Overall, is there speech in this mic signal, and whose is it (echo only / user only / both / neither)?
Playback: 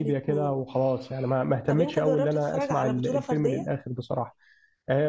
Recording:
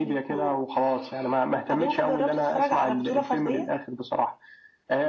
echo only